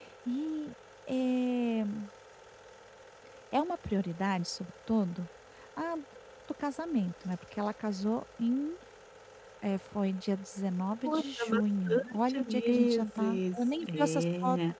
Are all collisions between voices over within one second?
No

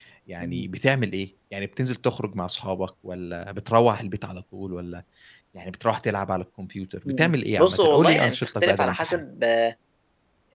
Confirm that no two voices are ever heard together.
No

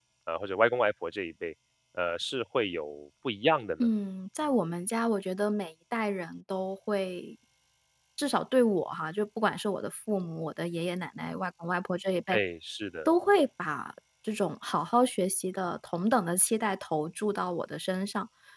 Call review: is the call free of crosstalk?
Yes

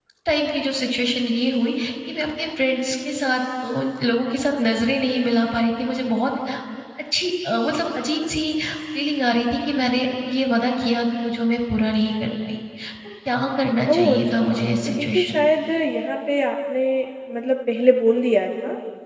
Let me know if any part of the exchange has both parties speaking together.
Yes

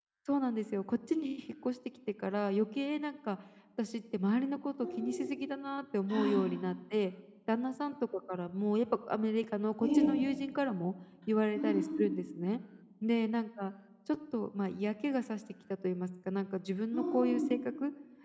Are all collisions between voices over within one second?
Yes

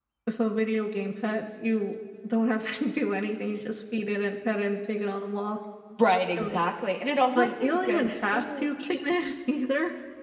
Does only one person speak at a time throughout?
No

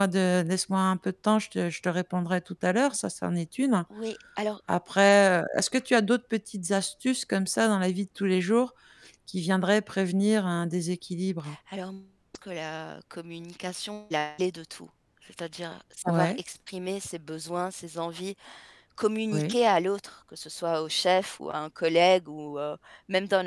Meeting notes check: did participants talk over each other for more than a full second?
No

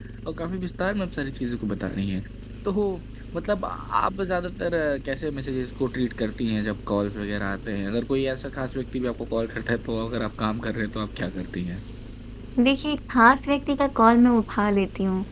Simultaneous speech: No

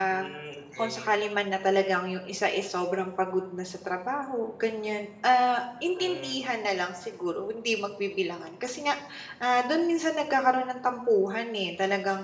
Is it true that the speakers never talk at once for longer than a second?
Yes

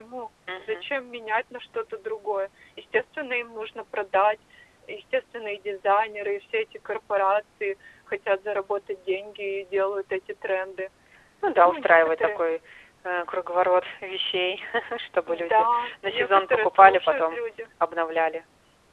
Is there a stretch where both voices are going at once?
Yes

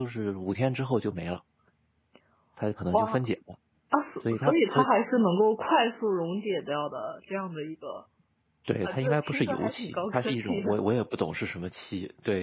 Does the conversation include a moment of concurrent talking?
Yes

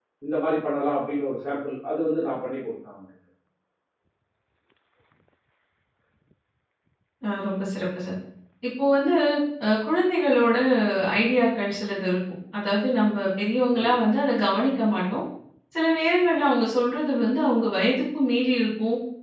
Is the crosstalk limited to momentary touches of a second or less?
Yes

